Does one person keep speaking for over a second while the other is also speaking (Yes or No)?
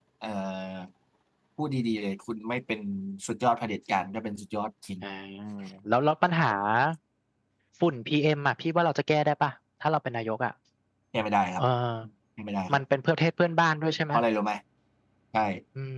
No